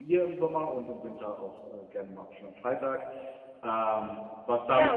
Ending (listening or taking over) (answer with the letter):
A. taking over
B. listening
A